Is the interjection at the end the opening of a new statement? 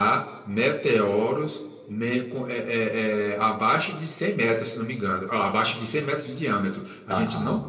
No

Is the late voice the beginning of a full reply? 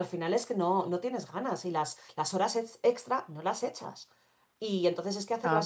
No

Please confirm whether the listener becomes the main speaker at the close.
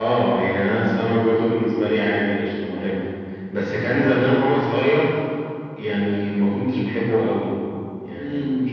No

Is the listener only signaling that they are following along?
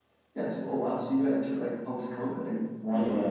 No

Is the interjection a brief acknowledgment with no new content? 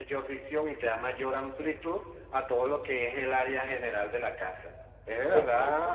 Yes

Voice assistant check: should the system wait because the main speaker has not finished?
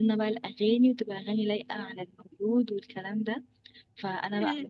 Yes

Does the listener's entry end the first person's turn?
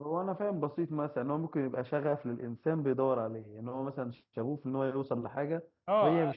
Yes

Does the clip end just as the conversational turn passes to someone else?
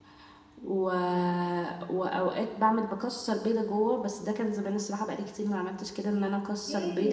Yes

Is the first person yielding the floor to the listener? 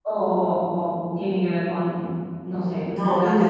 Yes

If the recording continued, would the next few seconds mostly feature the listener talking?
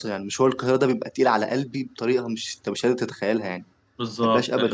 Yes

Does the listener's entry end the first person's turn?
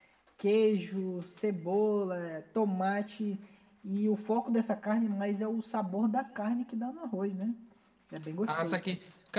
Yes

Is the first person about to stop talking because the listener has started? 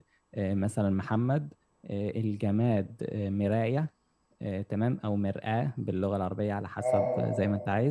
No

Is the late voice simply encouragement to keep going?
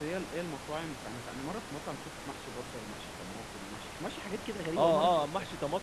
No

